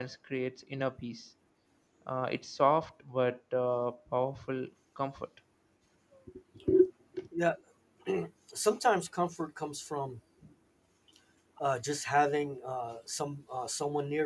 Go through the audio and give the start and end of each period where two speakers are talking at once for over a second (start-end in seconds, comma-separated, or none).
none